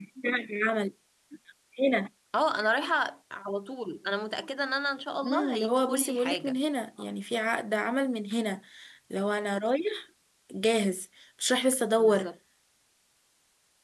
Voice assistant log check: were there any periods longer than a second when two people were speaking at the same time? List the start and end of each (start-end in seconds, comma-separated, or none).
5.2-6.6